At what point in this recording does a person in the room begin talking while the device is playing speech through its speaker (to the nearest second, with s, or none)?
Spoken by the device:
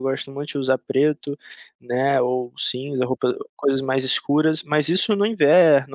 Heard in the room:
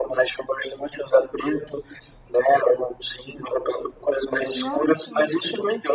5 s